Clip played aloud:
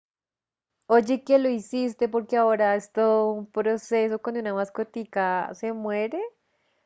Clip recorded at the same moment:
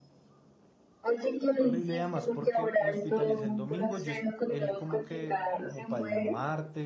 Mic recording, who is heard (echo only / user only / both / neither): both